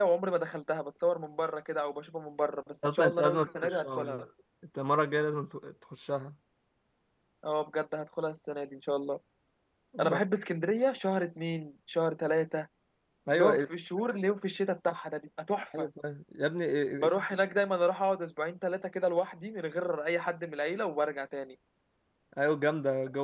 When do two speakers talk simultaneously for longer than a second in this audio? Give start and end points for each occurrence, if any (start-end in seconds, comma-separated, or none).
2.9-4.0